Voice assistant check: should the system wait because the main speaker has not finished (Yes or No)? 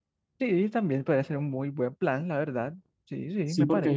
No